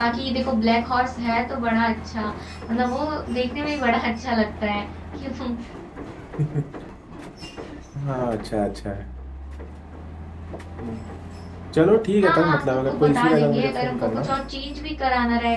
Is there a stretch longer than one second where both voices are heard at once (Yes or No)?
Yes